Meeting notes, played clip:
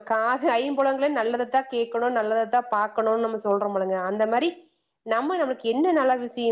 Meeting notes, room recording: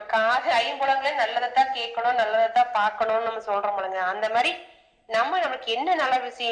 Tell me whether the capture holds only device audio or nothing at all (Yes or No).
Yes